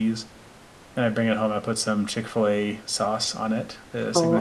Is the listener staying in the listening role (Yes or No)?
No